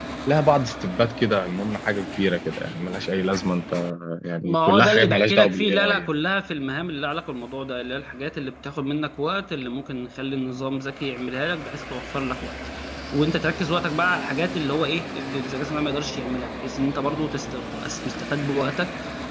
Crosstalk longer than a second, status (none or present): present